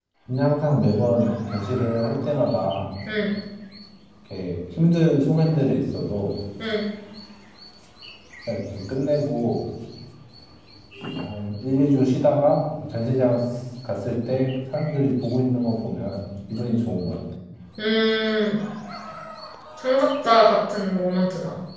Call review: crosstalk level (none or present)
none